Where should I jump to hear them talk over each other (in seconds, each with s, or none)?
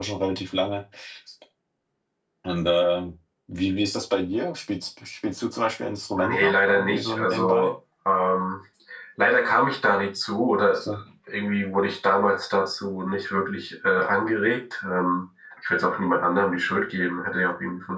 6.2 s